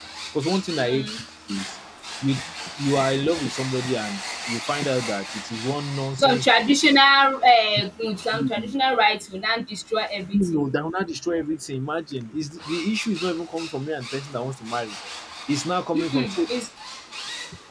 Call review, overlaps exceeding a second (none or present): none